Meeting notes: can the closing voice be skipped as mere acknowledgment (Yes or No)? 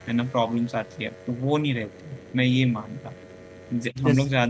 Yes